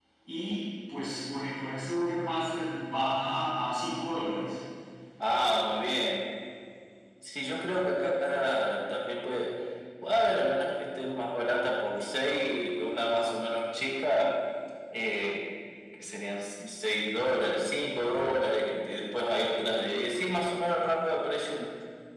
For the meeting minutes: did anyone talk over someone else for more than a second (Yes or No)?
No